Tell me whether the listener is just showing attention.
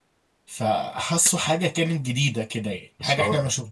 Yes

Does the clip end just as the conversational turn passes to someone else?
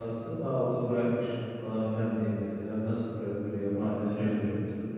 No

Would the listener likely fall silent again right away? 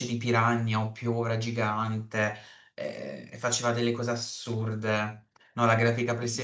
Yes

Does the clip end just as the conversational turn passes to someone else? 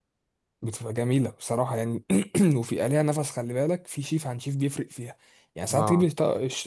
No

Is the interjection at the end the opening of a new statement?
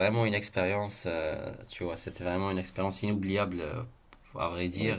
No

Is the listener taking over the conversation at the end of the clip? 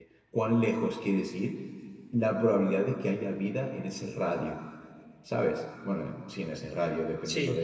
Yes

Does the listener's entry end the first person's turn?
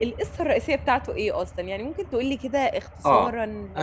Yes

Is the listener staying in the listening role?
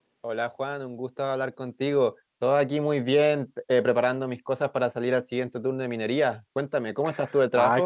No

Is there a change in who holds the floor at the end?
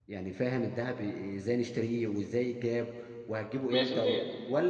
No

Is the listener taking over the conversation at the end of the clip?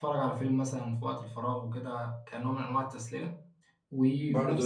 Yes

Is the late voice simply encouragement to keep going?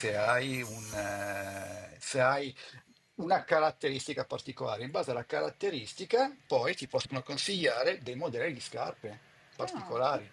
No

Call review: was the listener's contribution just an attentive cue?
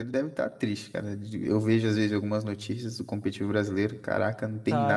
No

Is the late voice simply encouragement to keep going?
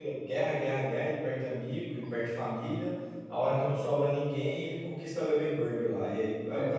Yes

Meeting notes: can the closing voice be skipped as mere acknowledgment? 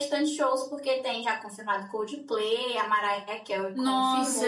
No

